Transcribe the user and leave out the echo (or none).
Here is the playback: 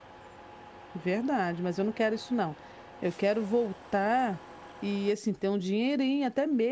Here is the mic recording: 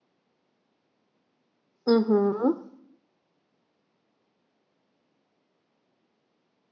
Uhum.